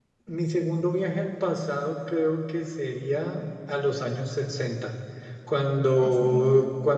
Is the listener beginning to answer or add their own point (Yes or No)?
No